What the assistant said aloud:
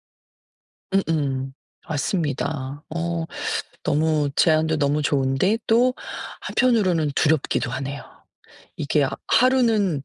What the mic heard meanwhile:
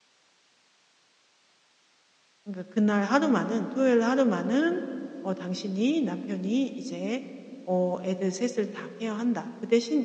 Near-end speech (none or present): present